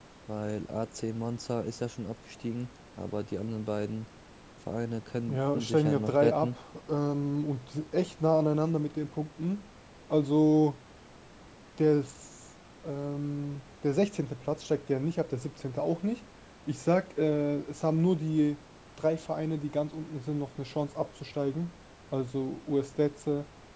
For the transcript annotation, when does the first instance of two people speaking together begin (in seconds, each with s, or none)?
5.3 s